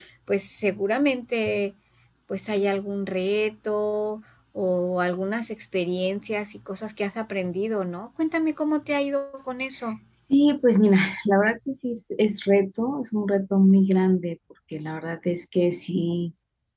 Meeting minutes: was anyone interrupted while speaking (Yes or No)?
No